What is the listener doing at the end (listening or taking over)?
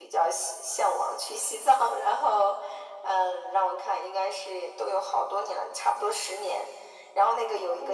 listening